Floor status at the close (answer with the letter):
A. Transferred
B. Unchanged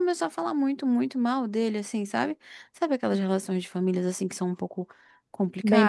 A